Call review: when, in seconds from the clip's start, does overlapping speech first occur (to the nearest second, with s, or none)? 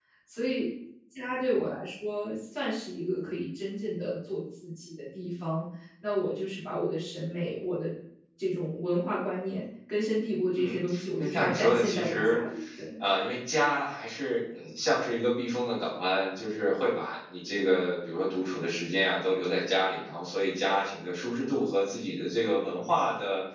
11 s